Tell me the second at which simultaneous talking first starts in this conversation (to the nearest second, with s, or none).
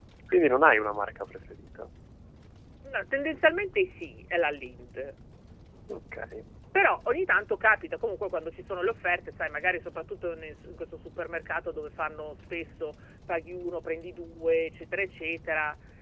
none